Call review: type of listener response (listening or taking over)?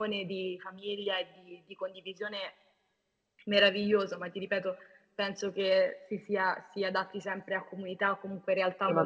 taking over